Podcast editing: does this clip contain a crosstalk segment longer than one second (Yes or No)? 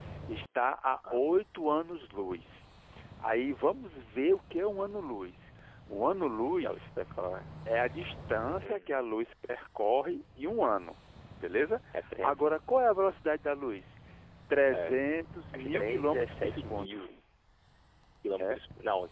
Yes